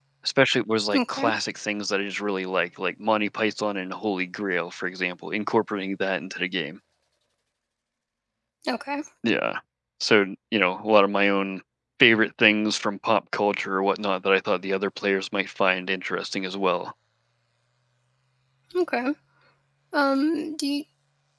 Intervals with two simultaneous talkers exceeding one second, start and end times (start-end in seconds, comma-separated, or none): none